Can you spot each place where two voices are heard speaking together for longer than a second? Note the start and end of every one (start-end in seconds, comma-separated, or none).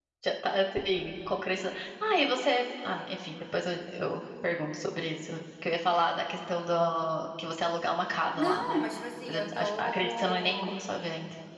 9.2-10.7